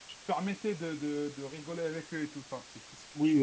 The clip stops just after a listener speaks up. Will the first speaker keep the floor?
No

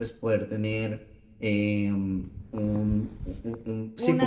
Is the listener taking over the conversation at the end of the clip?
Yes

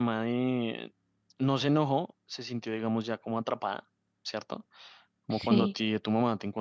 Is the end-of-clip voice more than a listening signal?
No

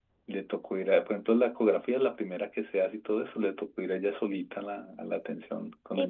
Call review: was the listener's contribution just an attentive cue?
No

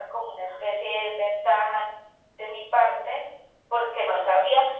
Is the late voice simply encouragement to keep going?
Yes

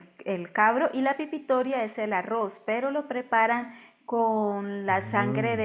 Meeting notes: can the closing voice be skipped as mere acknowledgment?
Yes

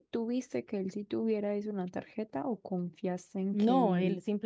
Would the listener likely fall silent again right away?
No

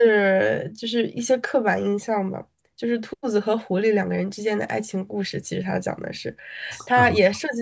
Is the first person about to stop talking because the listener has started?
No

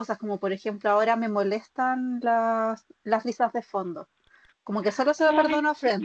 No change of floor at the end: Yes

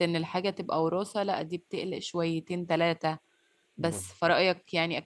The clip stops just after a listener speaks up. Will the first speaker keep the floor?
Yes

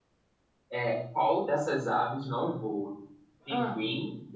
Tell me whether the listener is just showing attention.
Yes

